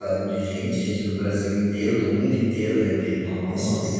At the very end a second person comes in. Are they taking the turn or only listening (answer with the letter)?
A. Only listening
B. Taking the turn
A